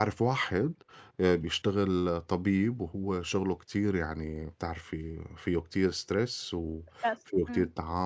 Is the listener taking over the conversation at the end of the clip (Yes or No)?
No